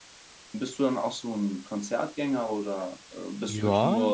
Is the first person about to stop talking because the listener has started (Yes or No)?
Yes